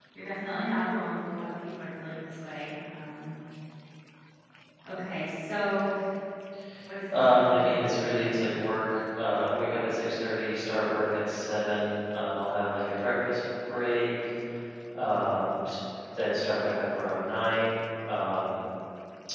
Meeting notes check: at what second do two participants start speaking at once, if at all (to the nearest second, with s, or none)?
7 s